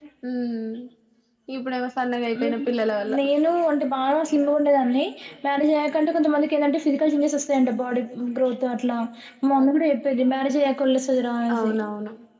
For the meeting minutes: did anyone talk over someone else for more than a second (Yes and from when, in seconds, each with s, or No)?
No